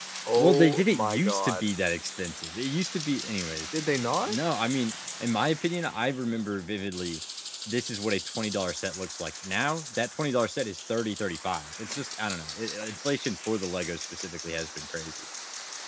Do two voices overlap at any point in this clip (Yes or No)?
Yes